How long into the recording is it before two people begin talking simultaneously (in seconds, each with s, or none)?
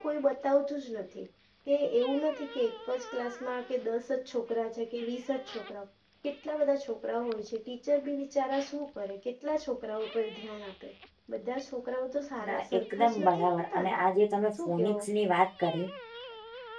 12.5 s